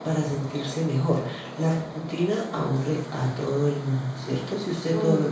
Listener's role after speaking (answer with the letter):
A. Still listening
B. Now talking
A